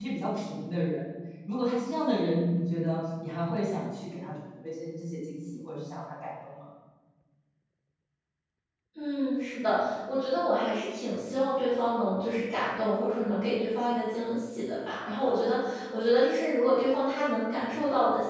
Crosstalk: none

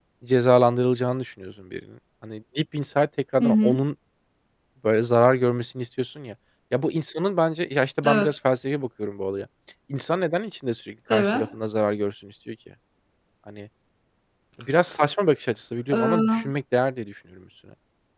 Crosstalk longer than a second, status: none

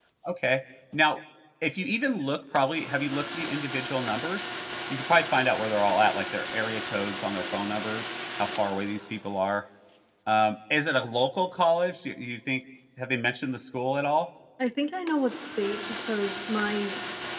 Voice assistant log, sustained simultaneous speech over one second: none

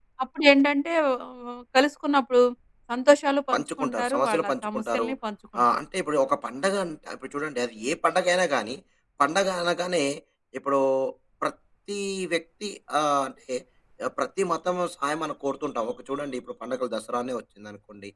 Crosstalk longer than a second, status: present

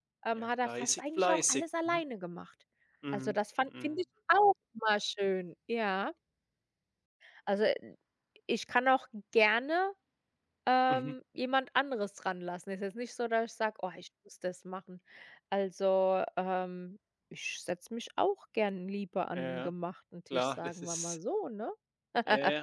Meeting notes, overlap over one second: present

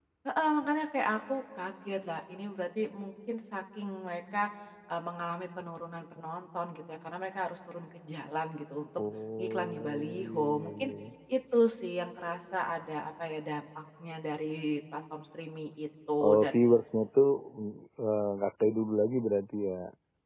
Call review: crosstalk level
present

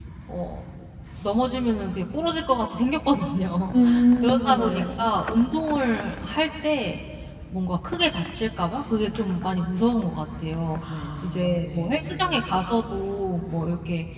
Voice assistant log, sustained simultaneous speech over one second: present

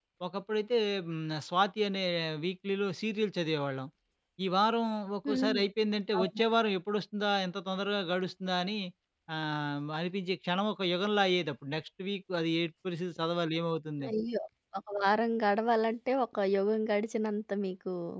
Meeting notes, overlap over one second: none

